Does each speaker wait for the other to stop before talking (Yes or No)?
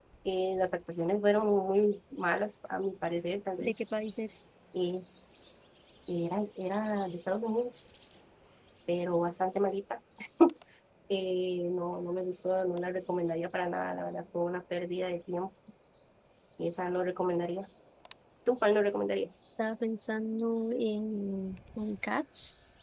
Yes